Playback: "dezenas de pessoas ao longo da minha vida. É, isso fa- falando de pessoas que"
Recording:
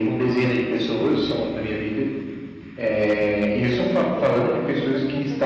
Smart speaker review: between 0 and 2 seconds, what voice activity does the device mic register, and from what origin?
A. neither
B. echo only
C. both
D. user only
B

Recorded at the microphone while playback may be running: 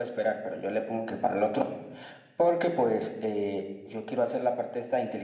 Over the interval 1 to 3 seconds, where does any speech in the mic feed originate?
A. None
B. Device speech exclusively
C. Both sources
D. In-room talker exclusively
B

